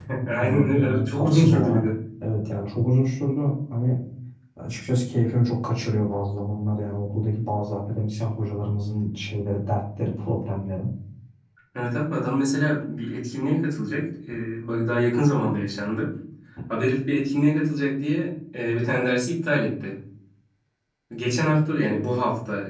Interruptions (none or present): present